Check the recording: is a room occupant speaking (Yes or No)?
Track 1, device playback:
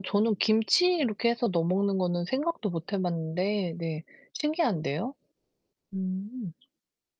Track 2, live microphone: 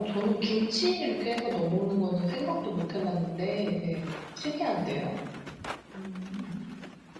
No